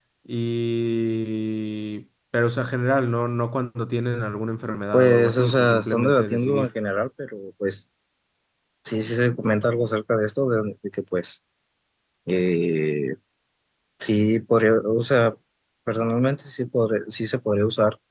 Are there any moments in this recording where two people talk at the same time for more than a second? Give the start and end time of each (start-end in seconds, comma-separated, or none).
4.9-6.7